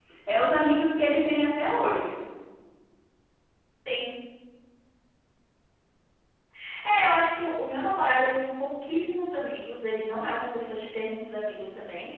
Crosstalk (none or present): none